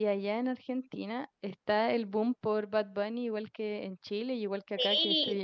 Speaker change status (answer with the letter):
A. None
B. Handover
B